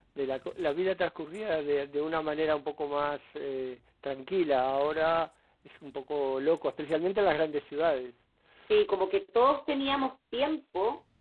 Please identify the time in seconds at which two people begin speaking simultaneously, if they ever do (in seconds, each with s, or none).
none